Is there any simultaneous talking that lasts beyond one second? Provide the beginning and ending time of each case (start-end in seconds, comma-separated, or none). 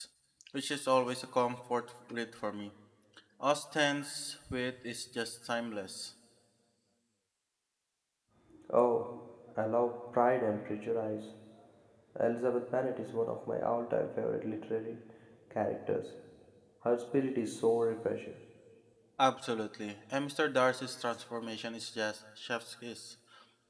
none